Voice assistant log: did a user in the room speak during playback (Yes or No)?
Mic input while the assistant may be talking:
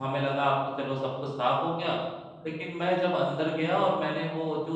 Yes